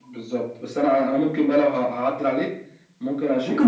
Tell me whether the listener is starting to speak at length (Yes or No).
No